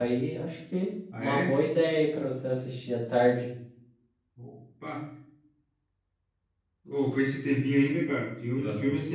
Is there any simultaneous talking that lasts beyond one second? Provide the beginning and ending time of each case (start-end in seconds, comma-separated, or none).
none